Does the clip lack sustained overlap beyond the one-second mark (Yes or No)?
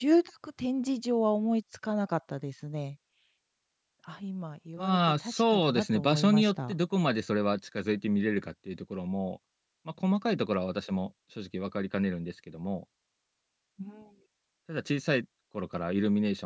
No